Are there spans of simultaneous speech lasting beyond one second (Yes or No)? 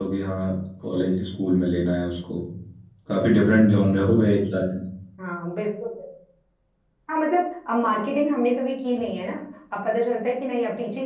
No